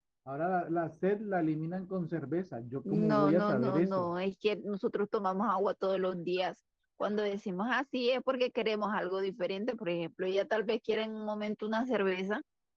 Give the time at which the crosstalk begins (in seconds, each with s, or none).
2.9 s